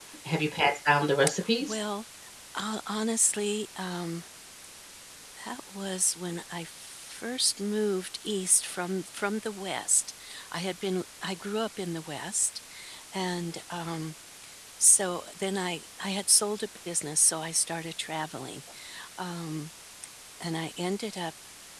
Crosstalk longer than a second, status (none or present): none